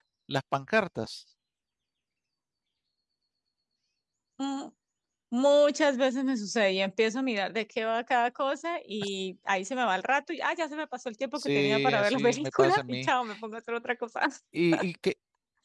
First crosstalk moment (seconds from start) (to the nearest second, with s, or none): 11 s